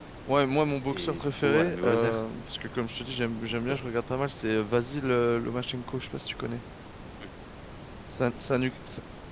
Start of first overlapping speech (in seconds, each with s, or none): 0.8 s